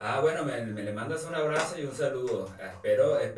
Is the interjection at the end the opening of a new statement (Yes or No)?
No